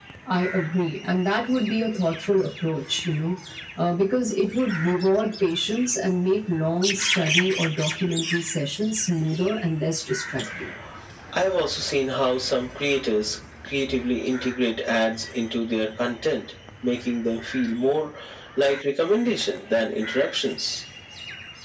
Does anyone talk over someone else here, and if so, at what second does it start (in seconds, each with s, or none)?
none